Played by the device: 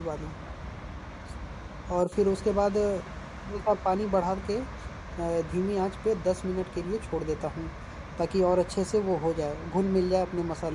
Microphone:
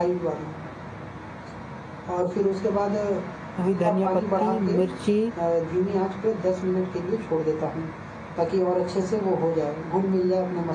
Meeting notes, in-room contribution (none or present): present